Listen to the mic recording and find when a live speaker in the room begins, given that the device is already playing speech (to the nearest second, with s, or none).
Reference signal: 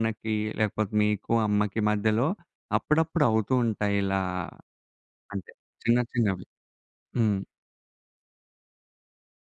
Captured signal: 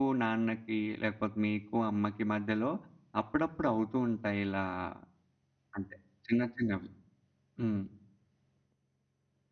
none